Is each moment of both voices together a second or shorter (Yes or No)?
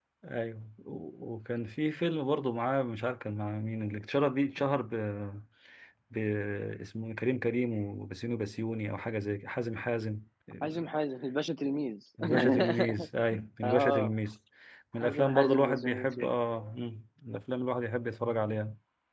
No